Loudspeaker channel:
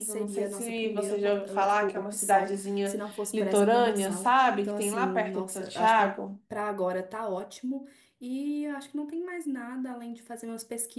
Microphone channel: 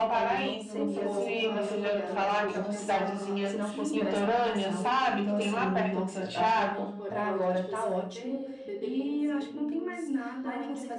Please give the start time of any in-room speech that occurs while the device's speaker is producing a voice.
0.7 s

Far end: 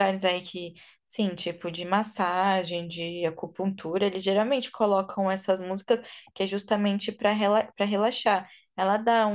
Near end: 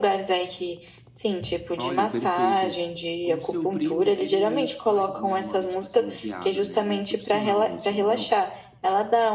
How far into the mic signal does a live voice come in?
1.8 s

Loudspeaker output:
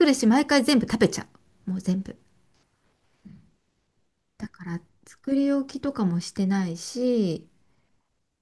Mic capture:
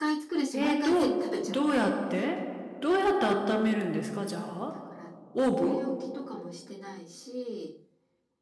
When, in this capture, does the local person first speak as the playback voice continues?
0.5 s

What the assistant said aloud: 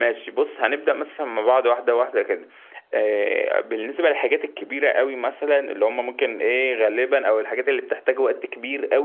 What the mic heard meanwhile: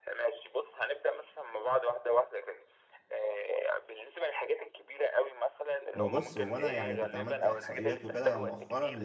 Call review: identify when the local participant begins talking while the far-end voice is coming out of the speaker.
6.0 s

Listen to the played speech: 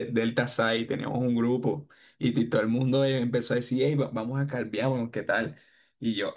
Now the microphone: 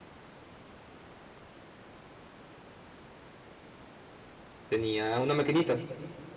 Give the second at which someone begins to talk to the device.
4.7 s

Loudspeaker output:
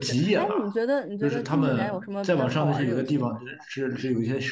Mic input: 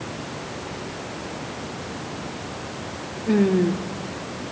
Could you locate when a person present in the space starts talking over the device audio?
3.2 s

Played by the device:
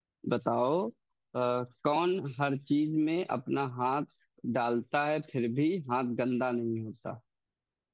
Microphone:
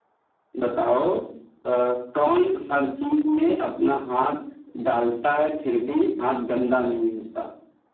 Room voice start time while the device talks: none

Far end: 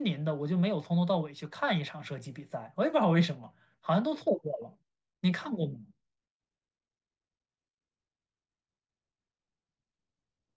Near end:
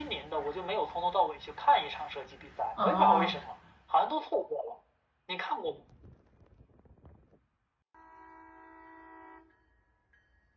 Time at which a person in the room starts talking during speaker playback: 2.7 s

